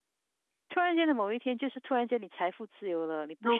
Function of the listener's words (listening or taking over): listening